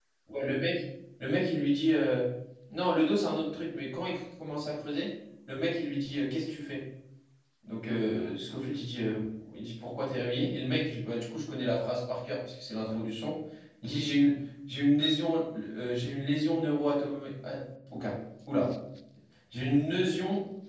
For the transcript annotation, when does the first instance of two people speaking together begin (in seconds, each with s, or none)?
none